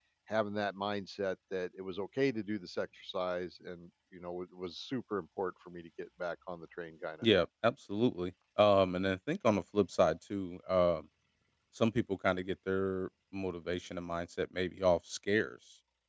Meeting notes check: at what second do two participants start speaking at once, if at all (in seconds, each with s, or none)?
none